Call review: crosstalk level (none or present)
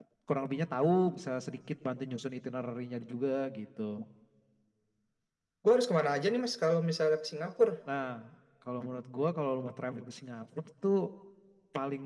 none